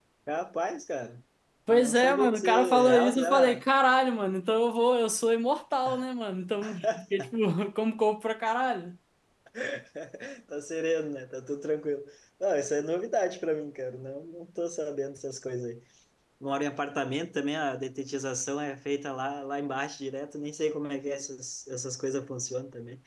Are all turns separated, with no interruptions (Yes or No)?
No